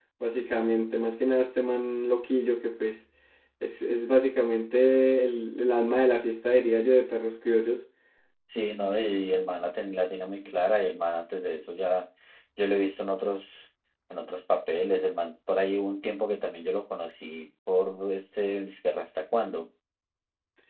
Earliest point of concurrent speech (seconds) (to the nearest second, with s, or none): none